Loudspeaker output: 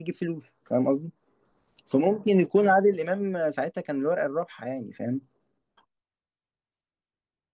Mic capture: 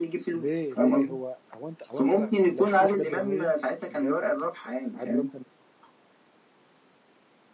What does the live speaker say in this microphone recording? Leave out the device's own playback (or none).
ليه ليه هو هو انت هو انت لا- لو شفت له حاجات دراميه بجد عادل امام كان